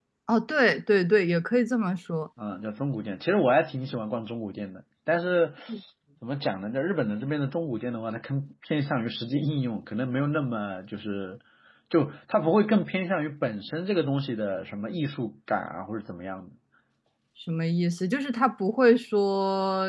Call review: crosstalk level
none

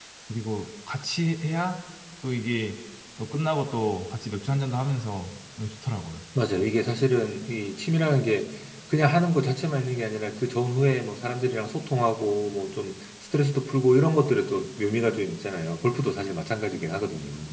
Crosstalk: none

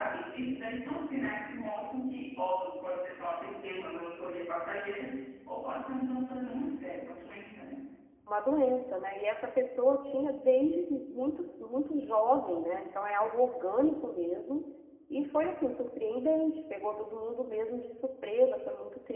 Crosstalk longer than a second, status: none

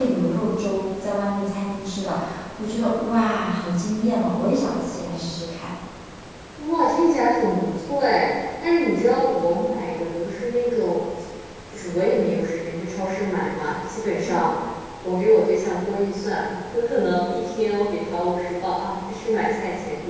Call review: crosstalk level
none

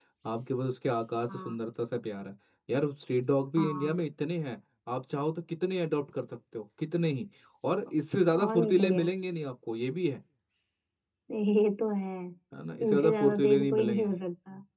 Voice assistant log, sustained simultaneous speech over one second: present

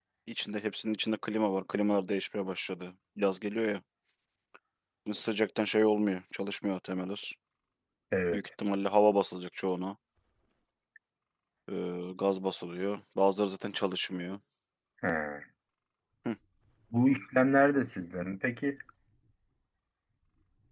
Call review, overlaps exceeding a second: none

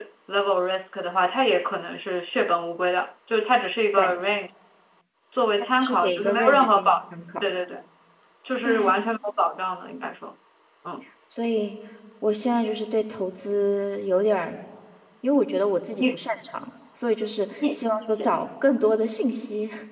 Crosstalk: present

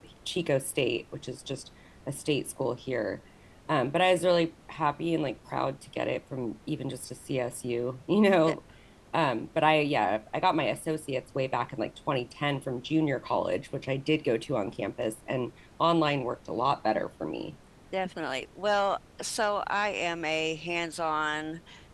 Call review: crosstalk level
none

